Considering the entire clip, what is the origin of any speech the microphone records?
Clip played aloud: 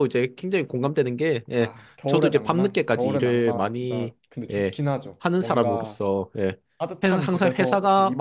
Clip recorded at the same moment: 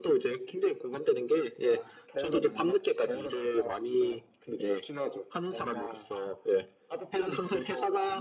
echo only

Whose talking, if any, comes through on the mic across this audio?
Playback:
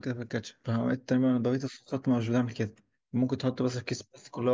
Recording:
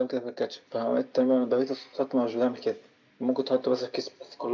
echo only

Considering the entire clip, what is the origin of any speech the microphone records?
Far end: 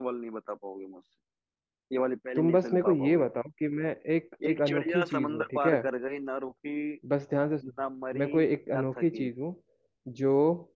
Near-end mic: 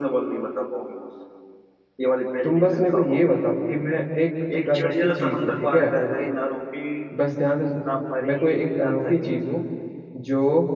echo only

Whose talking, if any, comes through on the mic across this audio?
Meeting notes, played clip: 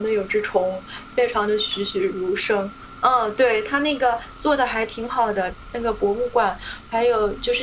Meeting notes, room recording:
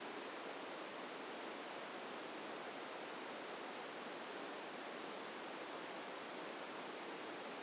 neither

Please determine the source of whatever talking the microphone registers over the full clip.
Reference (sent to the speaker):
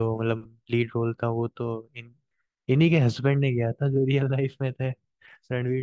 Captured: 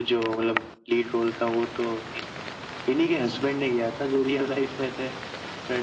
echo only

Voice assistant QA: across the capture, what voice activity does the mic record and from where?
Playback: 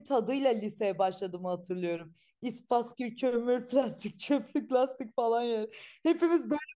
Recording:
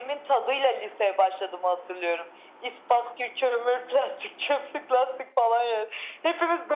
echo only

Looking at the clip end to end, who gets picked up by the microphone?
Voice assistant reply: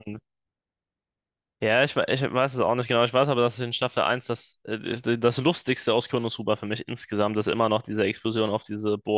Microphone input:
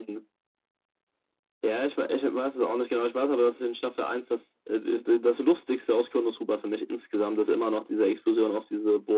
echo only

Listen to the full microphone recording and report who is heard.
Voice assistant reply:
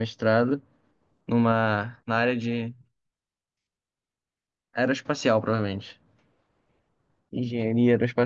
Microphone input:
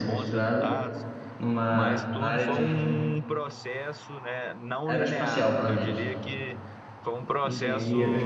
both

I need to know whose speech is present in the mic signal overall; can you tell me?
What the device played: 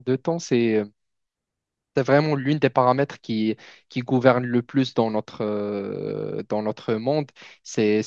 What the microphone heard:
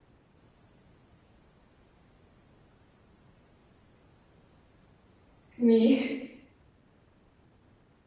user only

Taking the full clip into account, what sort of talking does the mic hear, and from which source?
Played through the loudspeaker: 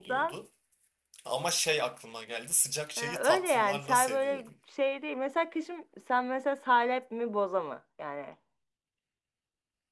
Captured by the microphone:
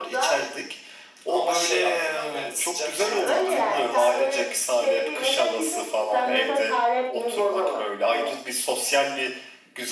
both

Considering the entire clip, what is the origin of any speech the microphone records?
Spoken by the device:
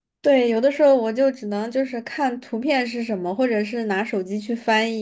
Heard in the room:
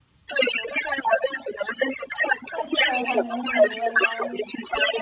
both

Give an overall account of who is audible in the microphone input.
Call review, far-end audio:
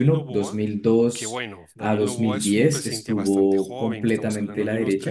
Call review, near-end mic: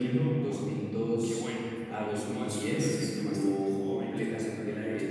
echo only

